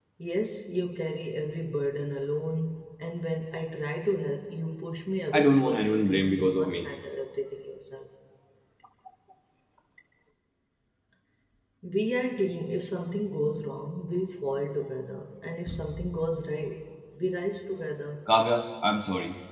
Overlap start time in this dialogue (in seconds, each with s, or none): 5.3 s